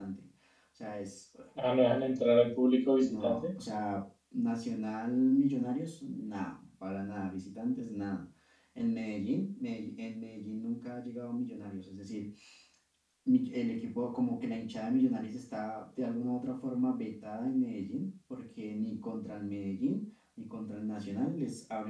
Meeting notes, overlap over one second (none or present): none